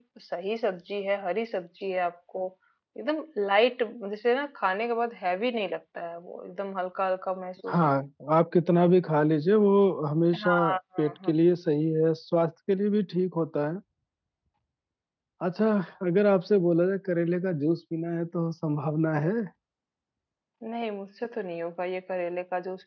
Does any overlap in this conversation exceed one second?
No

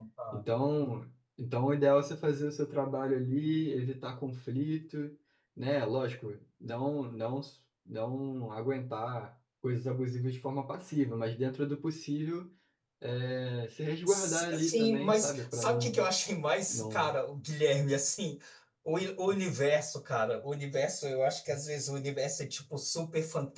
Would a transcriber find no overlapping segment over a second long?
No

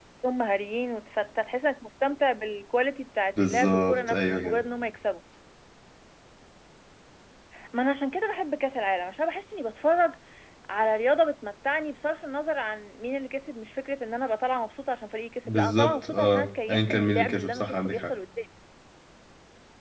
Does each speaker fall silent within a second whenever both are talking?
No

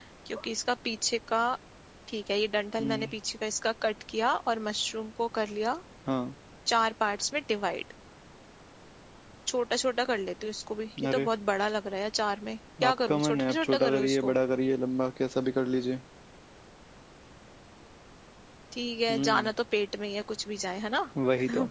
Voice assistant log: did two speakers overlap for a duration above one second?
Yes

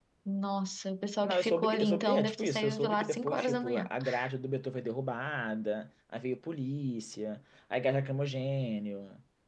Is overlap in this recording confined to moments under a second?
No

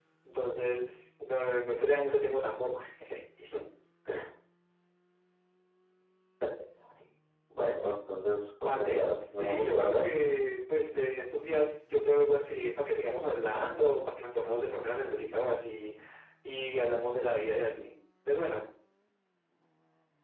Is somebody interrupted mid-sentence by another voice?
Yes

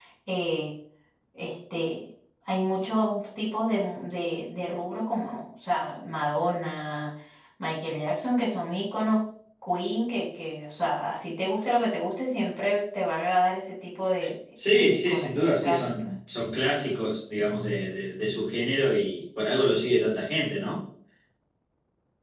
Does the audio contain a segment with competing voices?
Yes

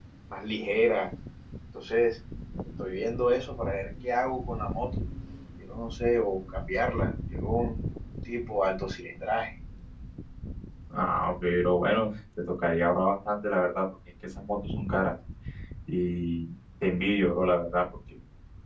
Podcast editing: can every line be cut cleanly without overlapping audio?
Yes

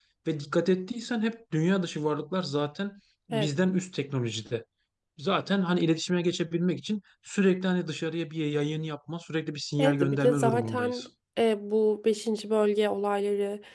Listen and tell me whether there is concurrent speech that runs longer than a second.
Yes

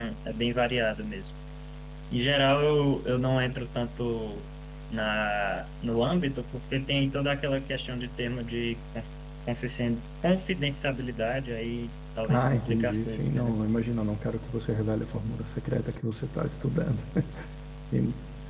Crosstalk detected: Yes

